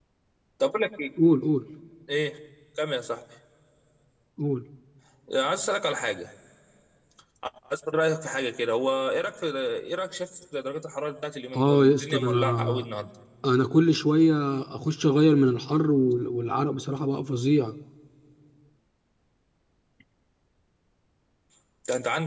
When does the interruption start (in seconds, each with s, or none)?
11.5 s